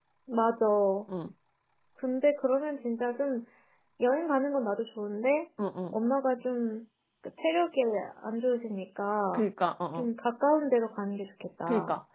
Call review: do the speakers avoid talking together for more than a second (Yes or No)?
Yes